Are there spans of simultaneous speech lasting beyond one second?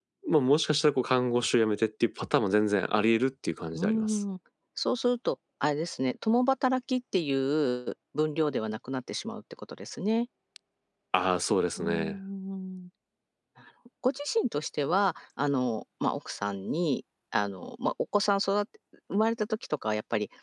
No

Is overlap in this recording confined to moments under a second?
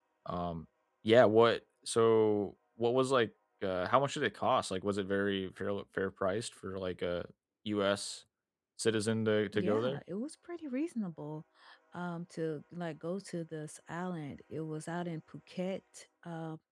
Yes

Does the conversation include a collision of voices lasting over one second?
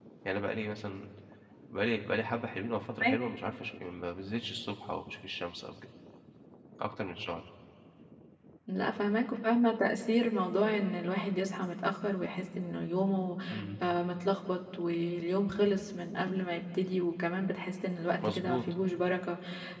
No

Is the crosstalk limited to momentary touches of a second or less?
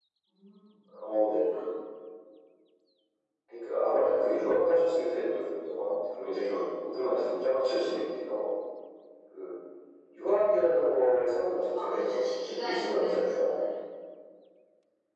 No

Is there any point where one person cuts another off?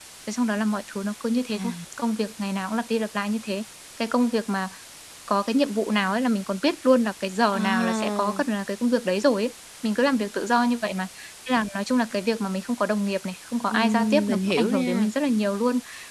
Yes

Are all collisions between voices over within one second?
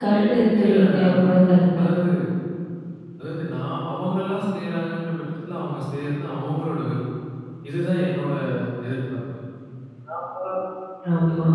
No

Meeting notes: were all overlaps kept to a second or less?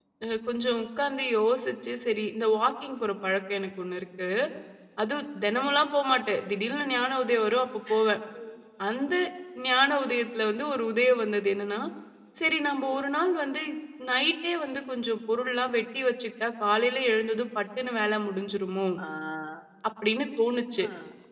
Yes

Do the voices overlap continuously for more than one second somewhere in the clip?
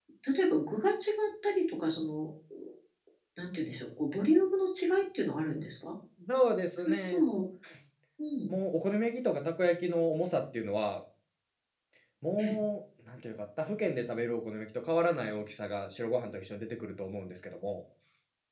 No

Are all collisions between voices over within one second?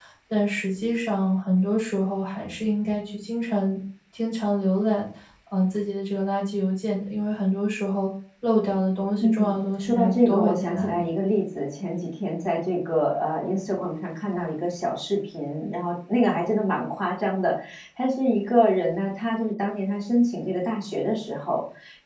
No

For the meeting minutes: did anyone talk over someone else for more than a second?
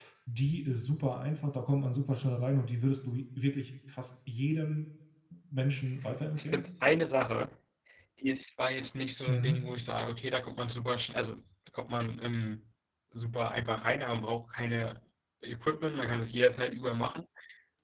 No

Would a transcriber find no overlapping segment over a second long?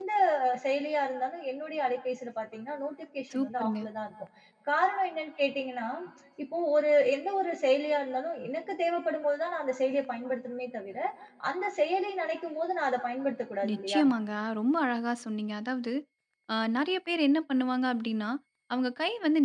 Yes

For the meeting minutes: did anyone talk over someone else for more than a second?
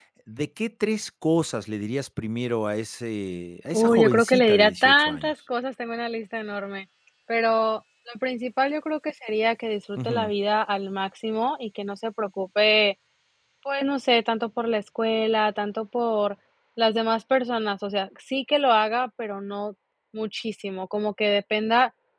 Yes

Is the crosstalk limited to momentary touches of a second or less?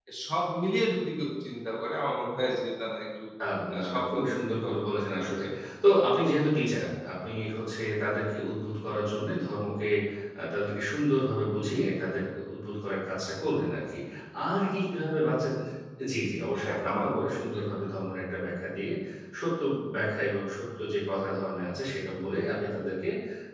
No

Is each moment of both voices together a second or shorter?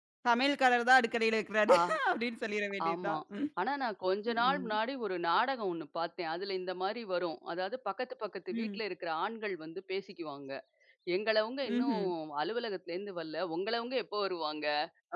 Yes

